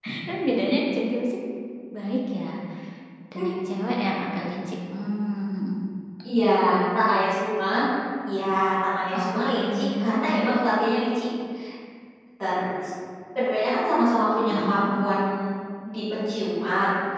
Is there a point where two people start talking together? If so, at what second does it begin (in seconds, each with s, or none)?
9.2 s